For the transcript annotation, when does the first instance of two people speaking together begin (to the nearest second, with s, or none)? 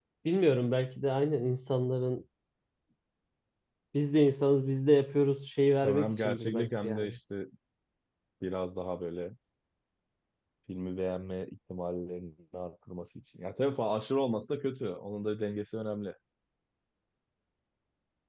6 s